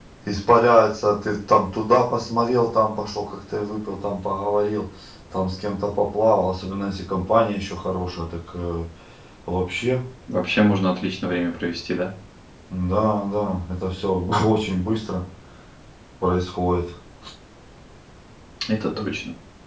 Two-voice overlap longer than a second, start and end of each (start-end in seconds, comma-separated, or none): none